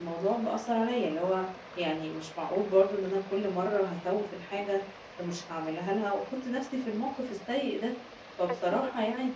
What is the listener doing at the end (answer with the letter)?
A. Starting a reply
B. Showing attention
B